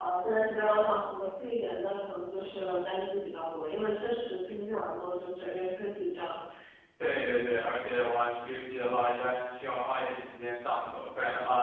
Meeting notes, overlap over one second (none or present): none